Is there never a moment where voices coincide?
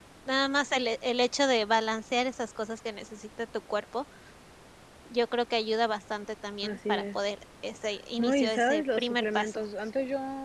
No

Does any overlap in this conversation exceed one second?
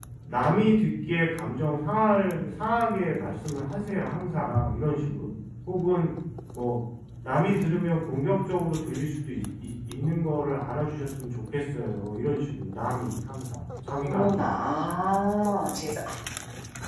No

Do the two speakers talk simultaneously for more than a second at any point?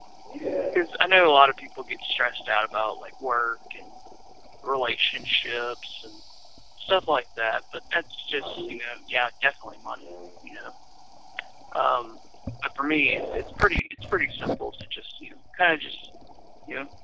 No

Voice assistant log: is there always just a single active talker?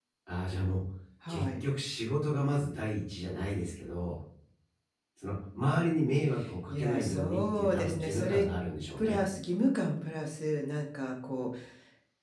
No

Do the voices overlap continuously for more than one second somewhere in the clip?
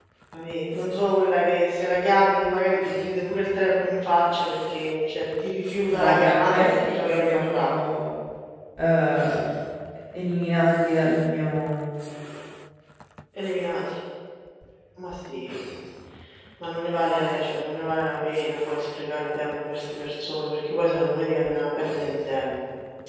Yes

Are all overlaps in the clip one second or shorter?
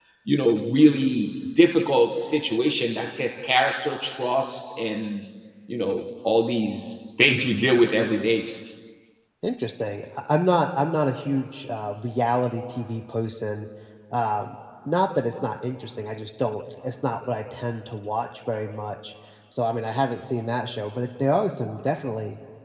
Yes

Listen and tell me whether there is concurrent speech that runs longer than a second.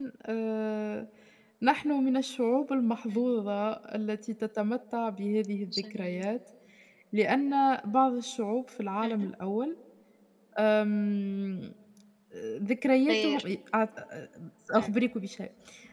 No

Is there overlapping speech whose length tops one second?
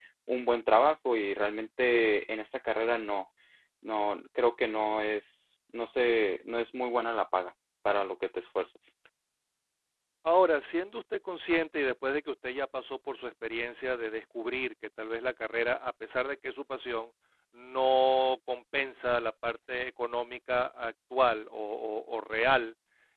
No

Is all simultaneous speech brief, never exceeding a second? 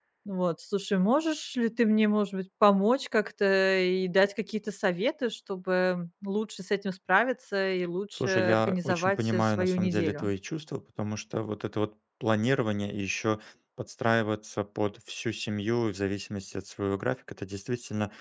No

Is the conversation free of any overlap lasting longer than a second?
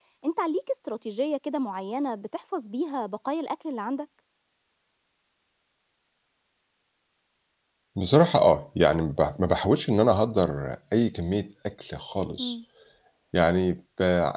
Yes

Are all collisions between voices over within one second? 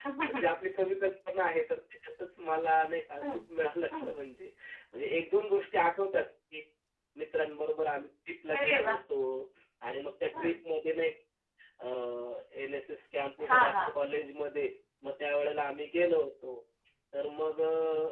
Yes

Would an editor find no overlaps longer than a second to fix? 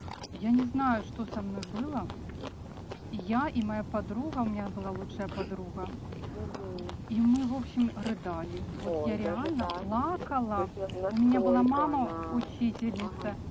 No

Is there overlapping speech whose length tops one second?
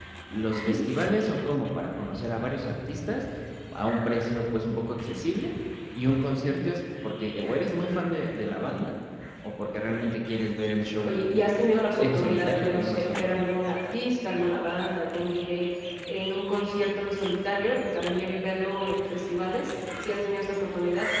Yes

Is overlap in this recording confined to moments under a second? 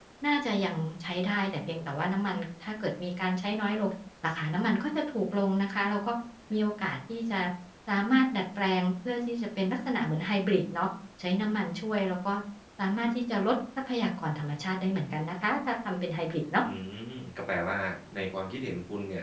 Yes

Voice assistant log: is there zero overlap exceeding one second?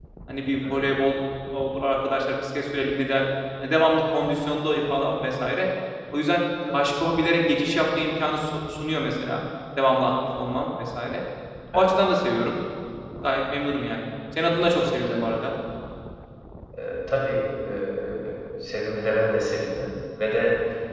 Yes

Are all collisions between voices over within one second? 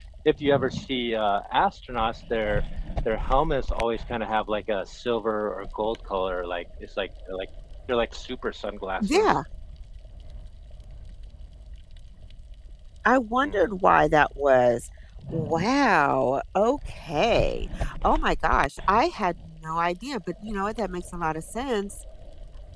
Yes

